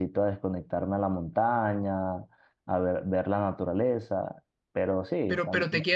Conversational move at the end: taking over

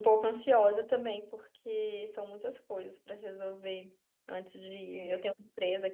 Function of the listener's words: listening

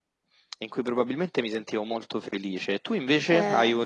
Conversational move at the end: listening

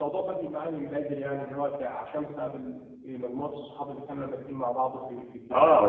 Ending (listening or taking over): taking over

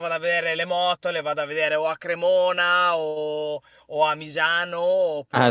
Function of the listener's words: taking over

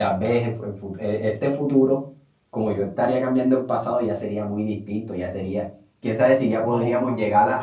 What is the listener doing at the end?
taking over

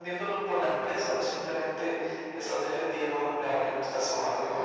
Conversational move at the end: taking over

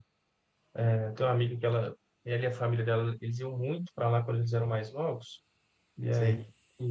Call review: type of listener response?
listening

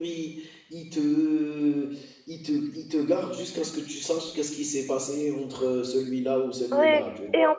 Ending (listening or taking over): taking over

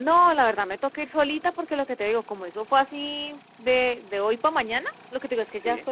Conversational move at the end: listening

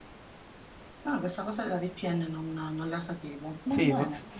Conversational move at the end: taking over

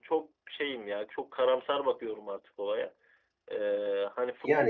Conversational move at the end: listening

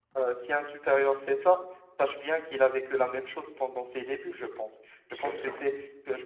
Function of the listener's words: listening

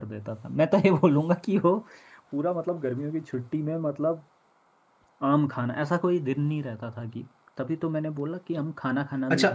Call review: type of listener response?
taking over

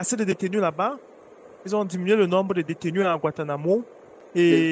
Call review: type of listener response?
listening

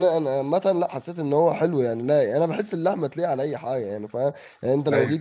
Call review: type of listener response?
listening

